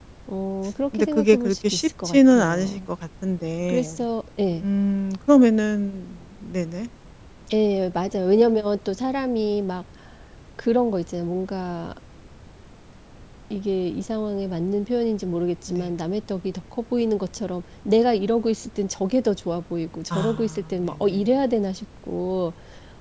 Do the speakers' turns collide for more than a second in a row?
Yes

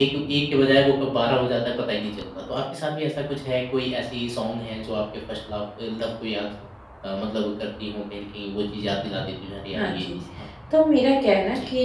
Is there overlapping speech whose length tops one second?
No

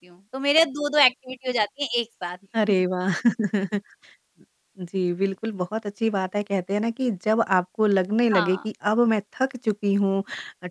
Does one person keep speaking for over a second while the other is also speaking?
No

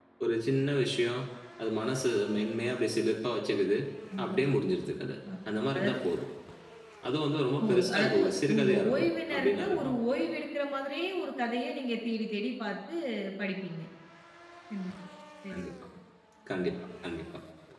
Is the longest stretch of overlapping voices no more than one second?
No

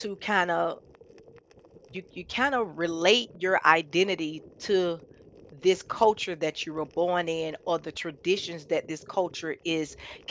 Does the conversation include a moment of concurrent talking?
No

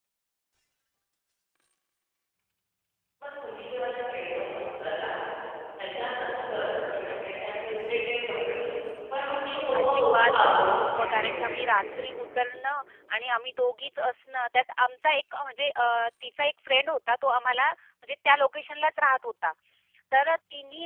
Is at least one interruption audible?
Yes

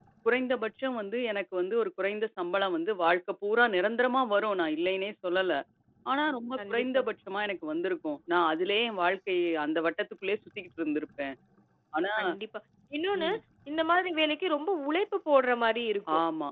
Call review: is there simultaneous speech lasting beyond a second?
No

